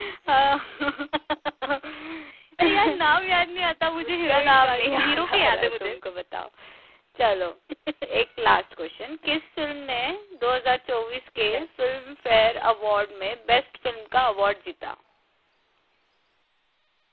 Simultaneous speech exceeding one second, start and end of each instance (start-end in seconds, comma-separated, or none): 4.0-6.0